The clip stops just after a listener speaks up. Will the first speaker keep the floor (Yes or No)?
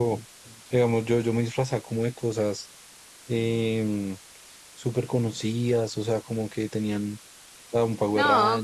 No